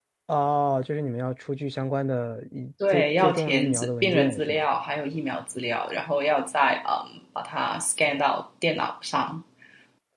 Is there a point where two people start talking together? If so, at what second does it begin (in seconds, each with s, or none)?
2.8 s